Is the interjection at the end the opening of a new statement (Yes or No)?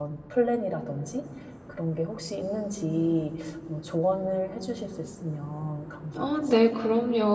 Yes